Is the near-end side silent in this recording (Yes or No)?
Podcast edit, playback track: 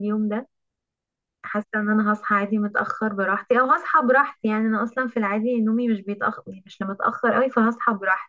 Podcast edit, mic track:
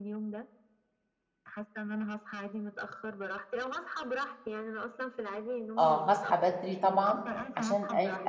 No